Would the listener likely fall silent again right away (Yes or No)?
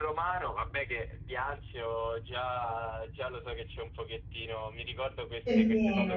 Yes